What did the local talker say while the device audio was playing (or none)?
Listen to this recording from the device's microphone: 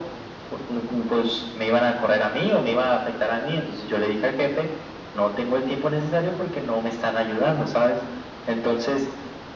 none